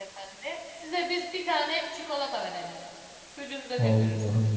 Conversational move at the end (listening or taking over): taking over